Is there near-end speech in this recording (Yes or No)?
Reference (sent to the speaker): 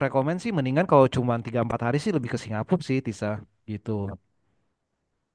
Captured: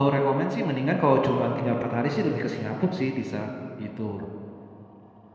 No